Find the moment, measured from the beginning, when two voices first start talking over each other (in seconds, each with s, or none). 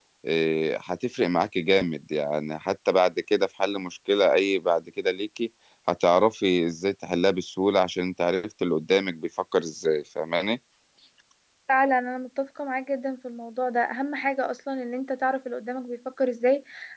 none